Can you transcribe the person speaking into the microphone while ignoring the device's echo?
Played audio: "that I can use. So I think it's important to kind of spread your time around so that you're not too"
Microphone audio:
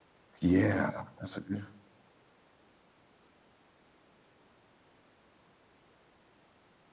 Yeah, that's a good.

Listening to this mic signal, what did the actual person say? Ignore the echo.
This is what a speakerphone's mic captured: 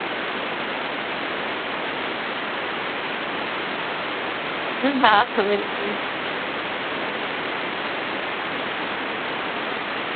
हुँ, हाँ। बिल्कुल।

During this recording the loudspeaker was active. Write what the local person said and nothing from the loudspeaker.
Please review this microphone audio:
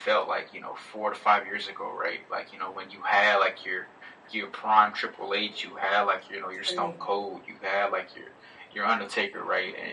True.

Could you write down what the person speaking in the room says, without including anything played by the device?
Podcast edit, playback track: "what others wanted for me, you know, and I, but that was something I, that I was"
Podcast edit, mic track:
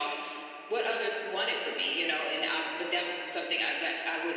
none

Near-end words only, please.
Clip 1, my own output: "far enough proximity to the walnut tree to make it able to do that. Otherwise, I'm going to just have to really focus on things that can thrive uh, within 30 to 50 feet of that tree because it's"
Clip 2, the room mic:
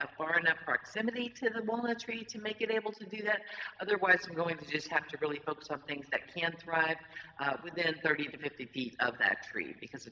none

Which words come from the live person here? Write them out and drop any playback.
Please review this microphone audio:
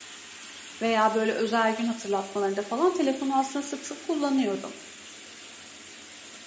veya böyle özel gün hatırlatmalarında falan telefonu aslında sık sık kullanıyorum.

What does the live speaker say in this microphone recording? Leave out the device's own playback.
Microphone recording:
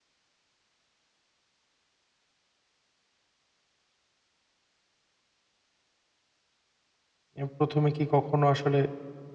এ ১ম এ কি কখনো আসলে

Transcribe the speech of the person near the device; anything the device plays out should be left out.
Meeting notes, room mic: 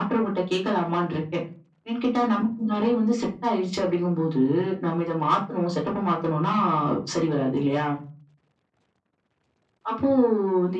none

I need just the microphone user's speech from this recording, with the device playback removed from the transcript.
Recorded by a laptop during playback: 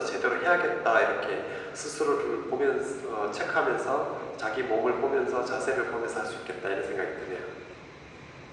none

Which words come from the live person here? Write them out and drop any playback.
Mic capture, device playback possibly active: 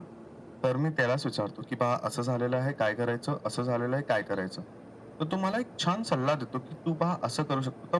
none

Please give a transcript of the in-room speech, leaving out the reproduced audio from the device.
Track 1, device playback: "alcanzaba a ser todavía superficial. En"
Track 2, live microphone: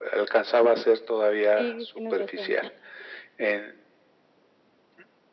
Sí, tienes razón.

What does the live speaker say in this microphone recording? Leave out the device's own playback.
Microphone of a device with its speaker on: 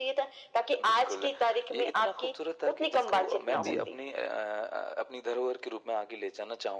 जी।

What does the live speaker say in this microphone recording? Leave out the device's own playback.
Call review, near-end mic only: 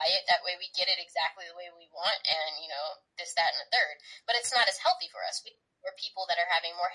none

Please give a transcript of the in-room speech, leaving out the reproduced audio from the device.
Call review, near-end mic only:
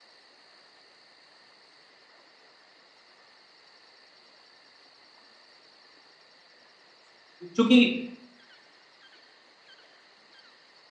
चूँकि

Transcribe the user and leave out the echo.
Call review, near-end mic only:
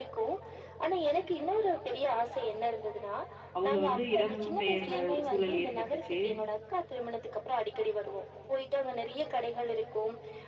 அவங்க வந்து இடம் பெயர்ற ஒரு சூழல் ஏற்பட்டுச்சு.

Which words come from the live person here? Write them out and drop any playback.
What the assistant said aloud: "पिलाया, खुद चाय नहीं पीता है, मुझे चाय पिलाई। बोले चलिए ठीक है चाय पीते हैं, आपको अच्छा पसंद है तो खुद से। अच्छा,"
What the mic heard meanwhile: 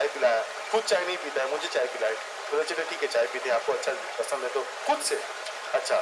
none

